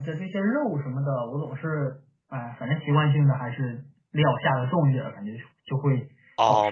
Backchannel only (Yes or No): No